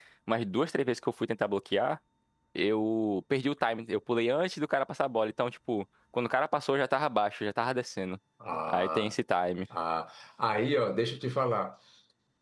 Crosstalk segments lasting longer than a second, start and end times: none

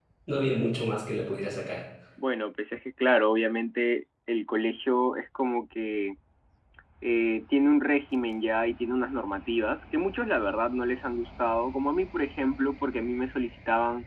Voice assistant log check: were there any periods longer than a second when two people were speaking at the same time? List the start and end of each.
none

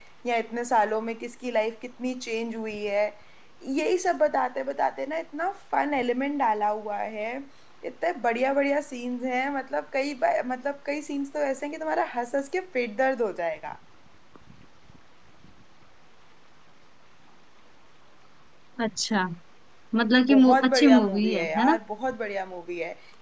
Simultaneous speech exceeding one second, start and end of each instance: 20.3-21.8

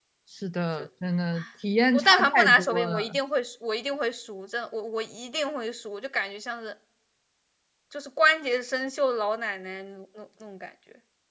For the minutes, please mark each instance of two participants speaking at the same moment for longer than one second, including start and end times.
1.9-3.2

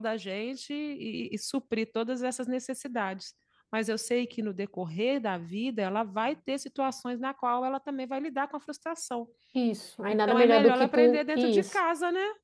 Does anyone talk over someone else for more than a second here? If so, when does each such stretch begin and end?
10.3-11.8

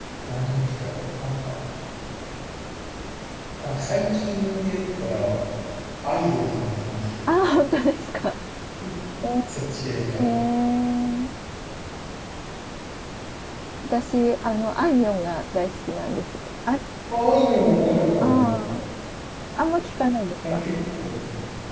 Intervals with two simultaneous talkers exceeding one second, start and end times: none

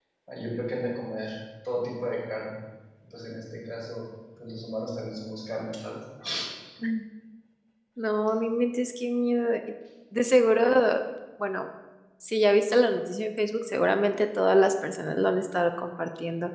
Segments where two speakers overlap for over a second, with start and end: none

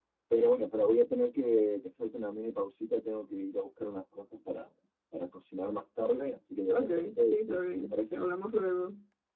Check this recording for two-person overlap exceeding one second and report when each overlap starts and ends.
6.7-8.2

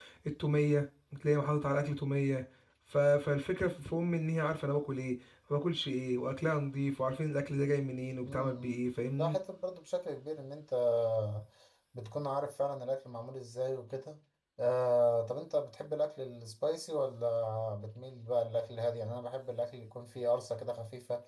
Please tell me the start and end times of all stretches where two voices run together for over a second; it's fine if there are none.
none

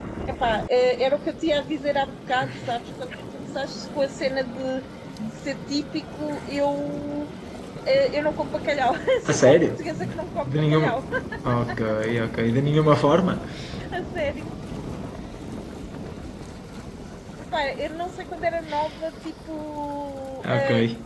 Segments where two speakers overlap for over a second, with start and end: 9.3-11.0

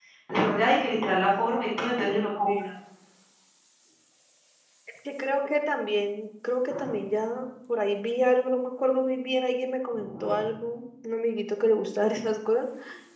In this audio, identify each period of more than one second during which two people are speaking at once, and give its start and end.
none

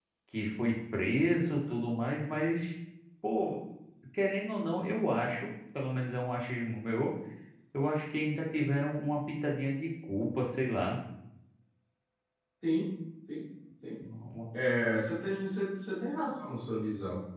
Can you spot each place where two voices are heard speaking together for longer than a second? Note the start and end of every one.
none

